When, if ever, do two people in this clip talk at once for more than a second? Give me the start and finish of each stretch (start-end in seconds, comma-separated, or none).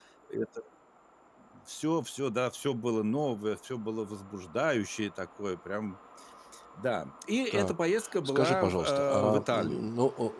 8.2-9.9